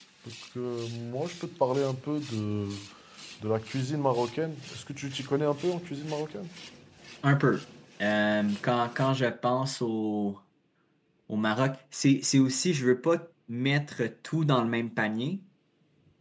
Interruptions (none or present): none